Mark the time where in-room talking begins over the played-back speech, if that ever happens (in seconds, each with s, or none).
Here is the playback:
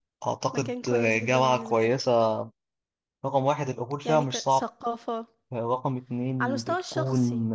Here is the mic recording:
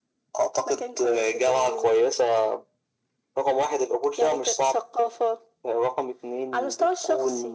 none